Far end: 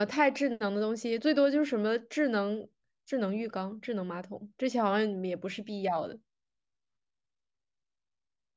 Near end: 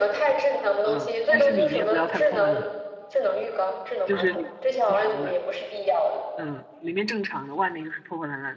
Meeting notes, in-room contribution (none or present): present